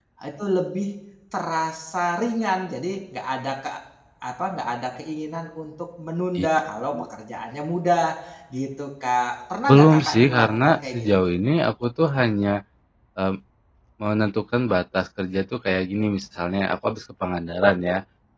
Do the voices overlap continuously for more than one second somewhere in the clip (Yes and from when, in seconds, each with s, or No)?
Yes, from 9.7 s